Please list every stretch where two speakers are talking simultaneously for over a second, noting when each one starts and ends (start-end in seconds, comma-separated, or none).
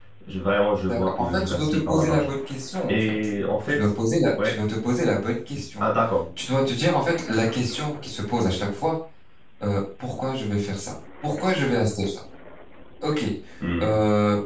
0.9-2.3